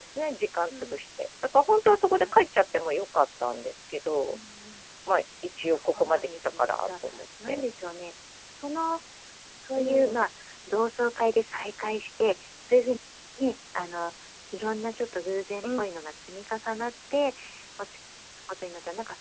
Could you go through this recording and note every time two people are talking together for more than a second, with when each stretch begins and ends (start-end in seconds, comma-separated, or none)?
5.6-6.9